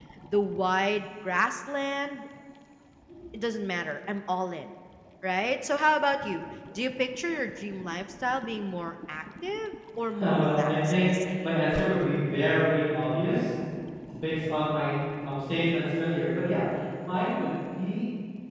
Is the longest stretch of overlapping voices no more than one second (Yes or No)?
No